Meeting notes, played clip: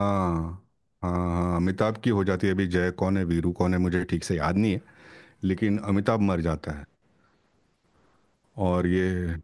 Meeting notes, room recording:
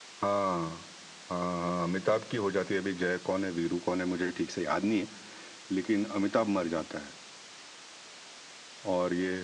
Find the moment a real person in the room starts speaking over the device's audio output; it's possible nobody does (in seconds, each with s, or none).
none